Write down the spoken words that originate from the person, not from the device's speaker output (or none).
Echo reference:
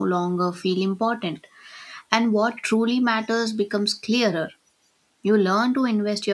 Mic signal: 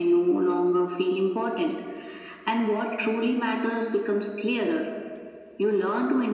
none